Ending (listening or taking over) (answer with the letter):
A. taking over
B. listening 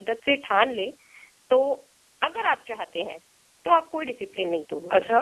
A